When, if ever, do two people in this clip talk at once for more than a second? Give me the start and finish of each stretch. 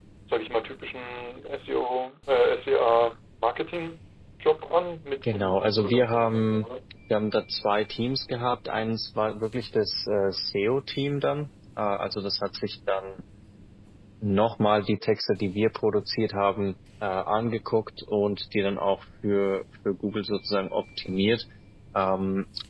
5.2-6.7

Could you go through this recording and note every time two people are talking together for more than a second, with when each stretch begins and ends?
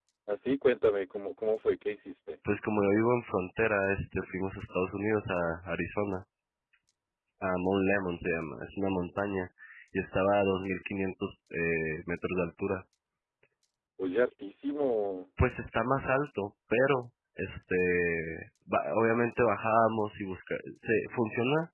none

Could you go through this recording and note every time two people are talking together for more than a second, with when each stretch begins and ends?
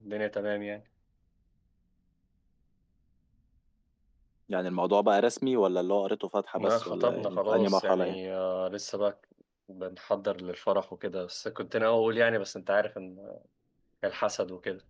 6.6-8.2

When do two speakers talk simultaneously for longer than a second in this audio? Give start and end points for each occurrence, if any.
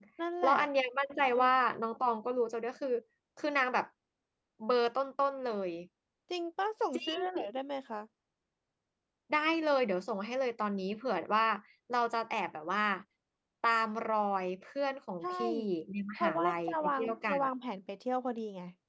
16.2-17.4

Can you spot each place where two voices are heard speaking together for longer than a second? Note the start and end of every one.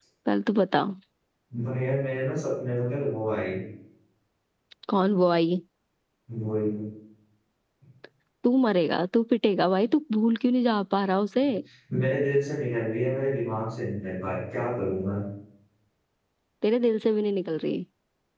none

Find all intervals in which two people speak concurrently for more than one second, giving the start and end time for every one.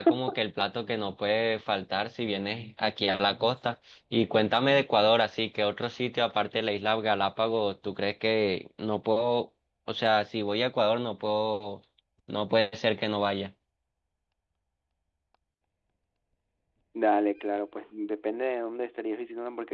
none

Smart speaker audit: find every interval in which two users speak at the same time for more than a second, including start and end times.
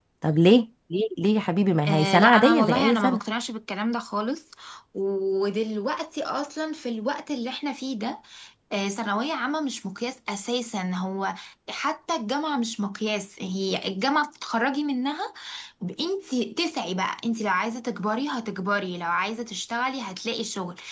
1.9-3.2

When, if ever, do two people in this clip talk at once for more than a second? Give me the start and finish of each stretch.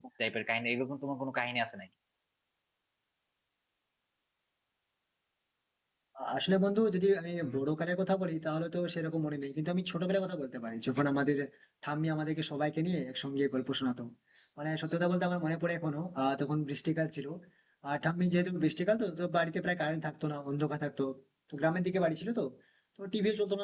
none

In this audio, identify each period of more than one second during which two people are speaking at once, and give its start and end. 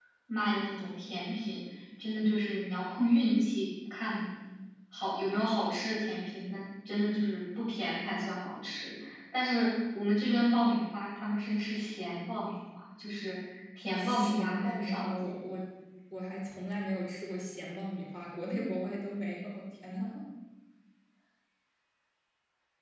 14.0-15.4

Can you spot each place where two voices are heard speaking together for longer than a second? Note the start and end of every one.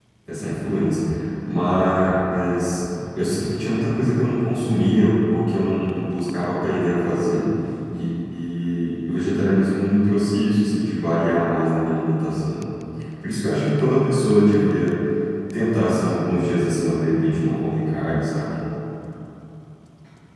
none

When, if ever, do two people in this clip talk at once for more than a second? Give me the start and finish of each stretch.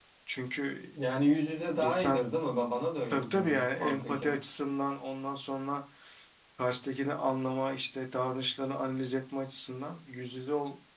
3.1-4.3

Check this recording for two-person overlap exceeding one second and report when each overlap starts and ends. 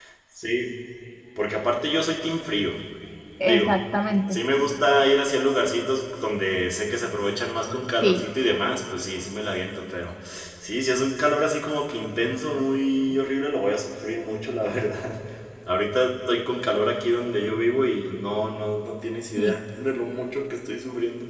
none

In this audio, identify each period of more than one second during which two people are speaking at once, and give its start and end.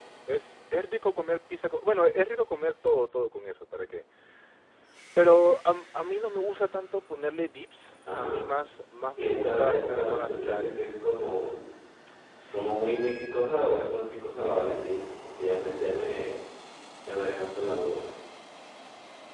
9.2-10.8

